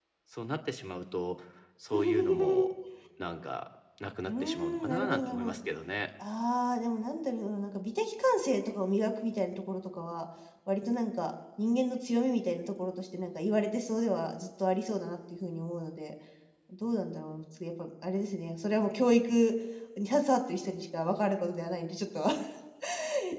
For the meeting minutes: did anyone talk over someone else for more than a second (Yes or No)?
Yes